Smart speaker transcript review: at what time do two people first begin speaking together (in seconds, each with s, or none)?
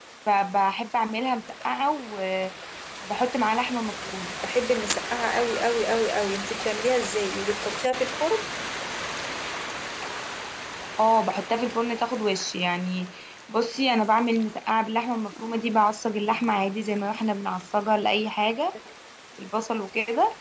none